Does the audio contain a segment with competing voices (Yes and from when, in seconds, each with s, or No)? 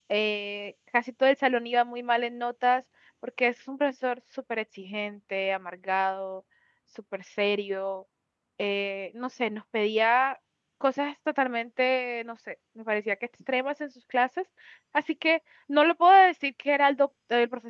No